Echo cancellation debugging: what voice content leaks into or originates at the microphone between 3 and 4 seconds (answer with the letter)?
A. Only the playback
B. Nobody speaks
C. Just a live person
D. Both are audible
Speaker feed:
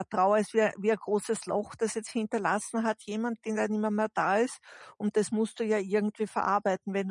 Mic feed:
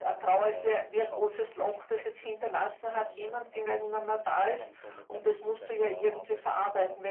D